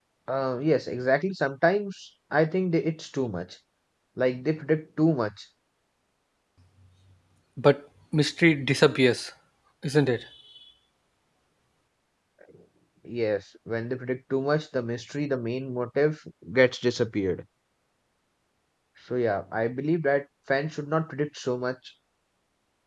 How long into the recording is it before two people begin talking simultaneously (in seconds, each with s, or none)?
none